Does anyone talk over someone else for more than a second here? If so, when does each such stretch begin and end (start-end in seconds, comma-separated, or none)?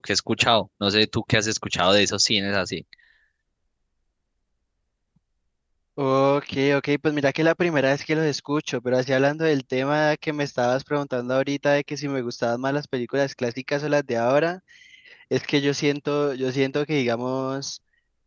none